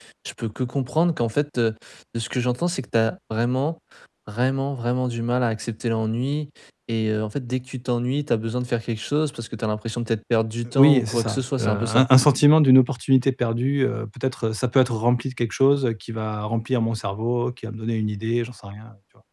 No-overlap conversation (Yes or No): No